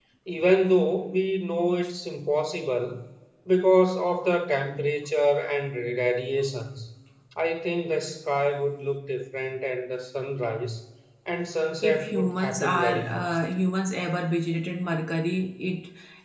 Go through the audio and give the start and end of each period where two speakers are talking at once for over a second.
11.8-13.4

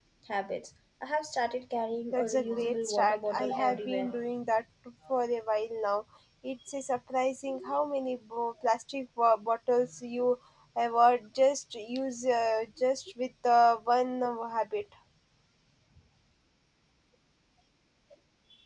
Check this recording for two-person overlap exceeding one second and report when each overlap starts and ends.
2.1-4.2

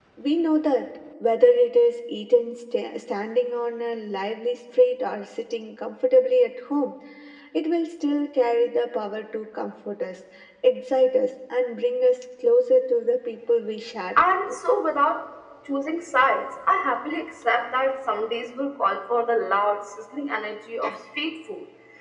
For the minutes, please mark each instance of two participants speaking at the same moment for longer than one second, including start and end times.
none

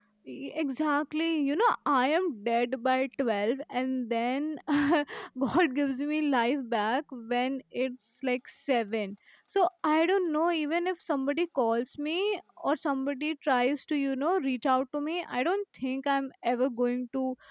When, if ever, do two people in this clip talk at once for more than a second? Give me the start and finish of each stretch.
none

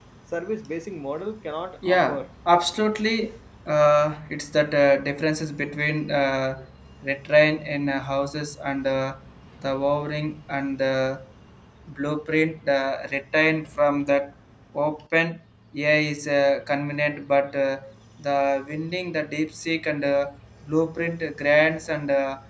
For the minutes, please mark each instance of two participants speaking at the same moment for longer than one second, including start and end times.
none

